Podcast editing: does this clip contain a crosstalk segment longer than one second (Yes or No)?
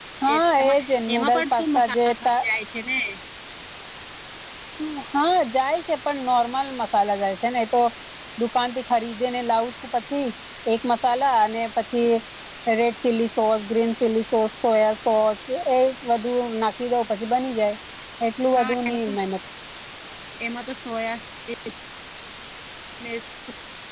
Yes